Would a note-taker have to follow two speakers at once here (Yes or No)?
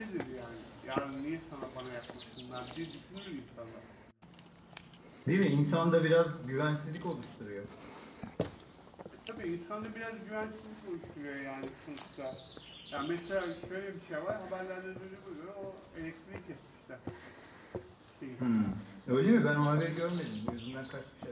No